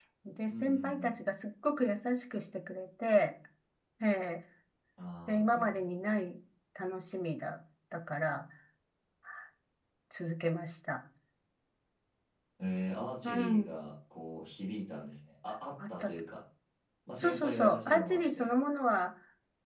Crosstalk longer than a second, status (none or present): present